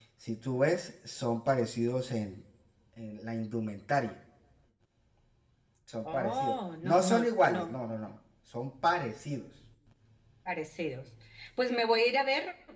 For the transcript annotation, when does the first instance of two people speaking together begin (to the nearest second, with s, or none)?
6 s